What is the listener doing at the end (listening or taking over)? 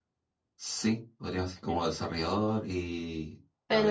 taking over